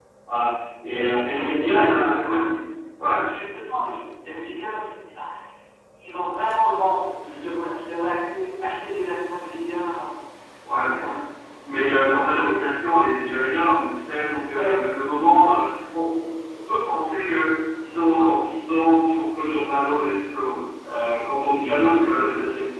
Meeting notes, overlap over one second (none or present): present